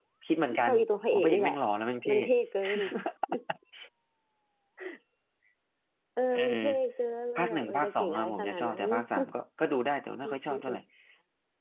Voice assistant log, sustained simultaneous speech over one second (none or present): present